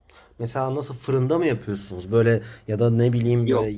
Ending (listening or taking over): listening